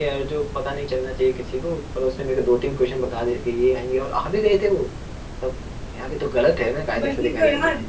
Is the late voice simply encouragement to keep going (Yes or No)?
No